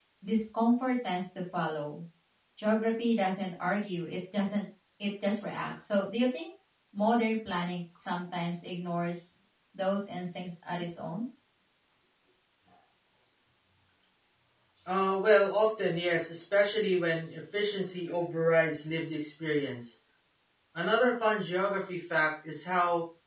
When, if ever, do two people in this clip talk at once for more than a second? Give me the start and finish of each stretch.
none

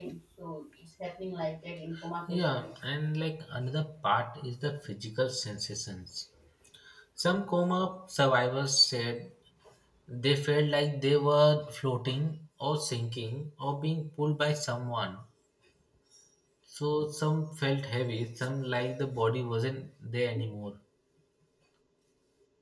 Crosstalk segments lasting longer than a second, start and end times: none

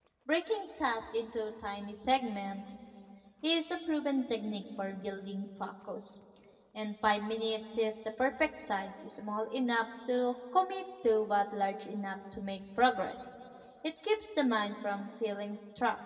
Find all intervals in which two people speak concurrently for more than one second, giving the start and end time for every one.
none

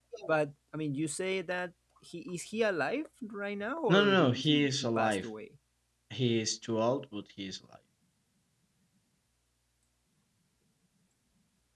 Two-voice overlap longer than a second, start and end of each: 3.9-5.3

